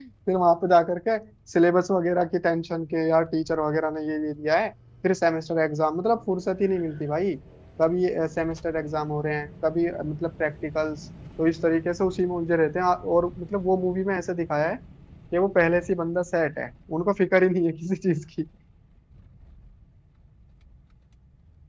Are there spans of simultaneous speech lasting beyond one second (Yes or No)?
No